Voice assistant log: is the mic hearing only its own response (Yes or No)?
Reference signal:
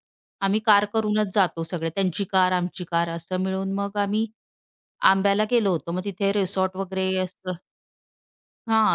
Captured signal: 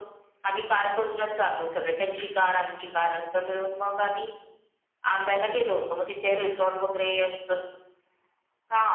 Yes